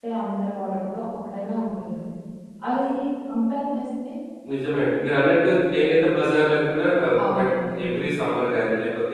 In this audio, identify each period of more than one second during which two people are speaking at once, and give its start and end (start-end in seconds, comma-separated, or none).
none